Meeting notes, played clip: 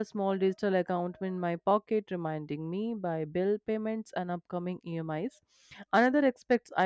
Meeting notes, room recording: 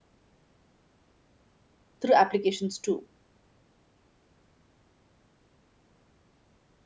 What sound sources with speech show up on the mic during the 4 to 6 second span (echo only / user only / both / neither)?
neither